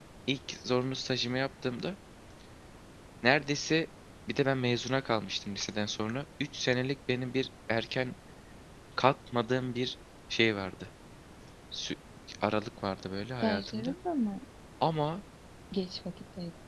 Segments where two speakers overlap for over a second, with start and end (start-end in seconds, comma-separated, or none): none